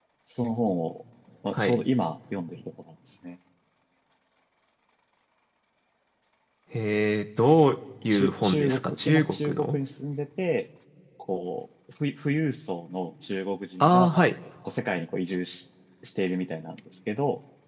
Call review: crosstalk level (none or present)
present